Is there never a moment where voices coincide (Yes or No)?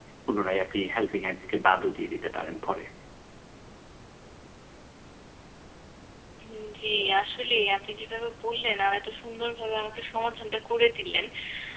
Yes